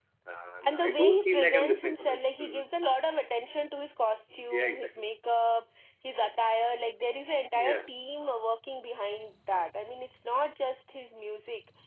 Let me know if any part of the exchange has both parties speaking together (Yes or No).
Yes